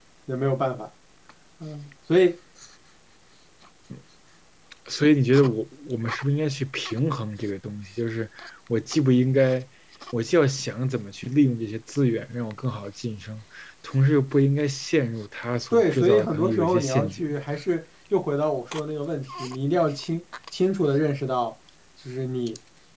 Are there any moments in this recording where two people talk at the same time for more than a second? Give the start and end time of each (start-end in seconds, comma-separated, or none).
15.7-17.2